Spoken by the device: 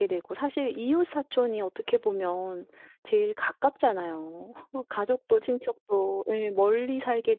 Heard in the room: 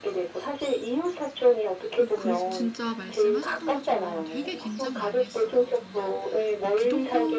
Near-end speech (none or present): present